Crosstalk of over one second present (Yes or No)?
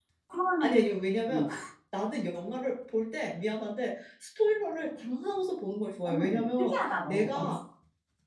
Yes